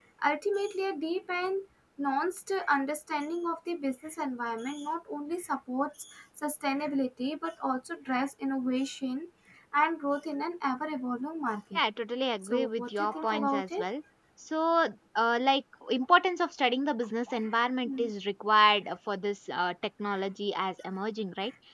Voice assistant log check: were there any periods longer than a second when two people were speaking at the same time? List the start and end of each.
12.4-13.8

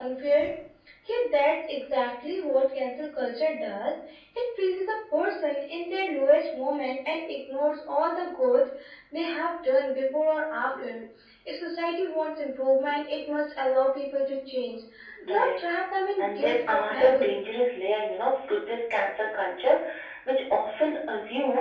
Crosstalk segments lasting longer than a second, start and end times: 16.2-17.4

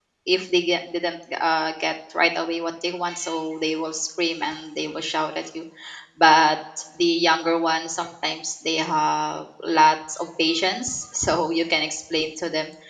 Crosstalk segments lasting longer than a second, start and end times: none

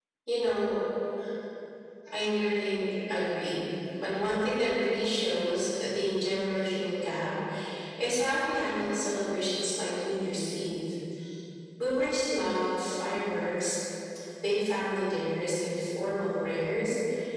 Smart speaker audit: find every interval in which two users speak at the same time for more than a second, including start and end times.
none

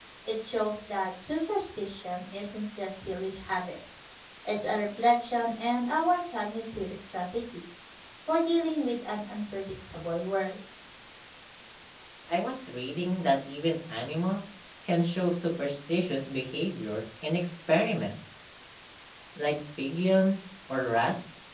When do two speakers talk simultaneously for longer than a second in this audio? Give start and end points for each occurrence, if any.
none

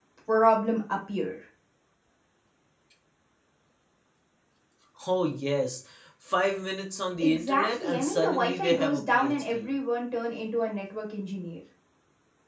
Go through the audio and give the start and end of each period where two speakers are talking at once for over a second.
7.2-9.8

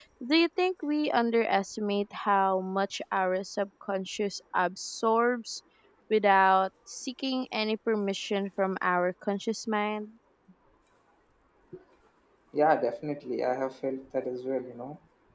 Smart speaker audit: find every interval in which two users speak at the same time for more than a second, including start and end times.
none

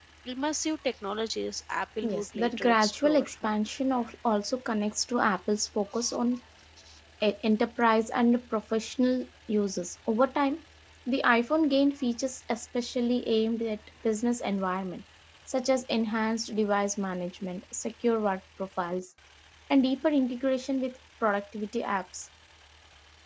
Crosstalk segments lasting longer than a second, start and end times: 2.0-3.3

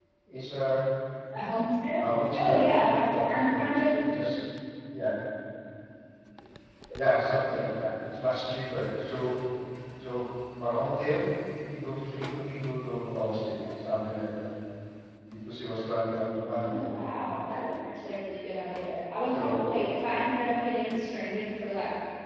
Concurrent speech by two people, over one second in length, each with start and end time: 2.4-4.0

